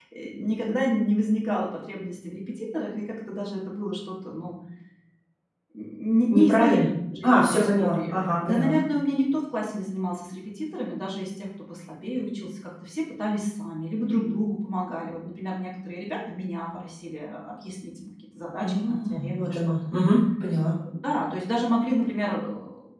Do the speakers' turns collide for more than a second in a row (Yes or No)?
Yes